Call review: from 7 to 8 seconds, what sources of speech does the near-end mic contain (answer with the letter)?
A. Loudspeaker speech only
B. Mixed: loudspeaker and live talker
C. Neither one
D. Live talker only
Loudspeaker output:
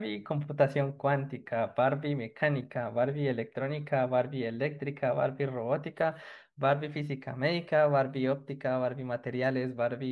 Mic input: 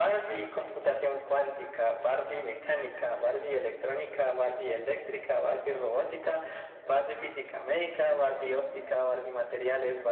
A